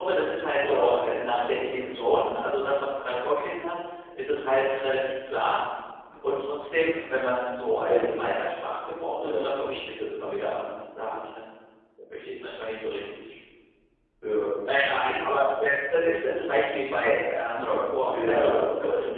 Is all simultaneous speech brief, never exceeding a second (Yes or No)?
No